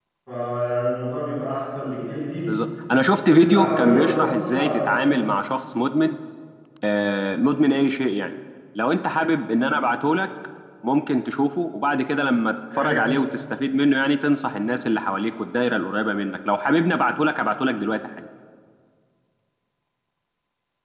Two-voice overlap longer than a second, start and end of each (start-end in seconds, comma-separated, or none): 3.2-5.1